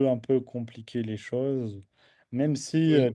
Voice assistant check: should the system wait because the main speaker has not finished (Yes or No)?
Yes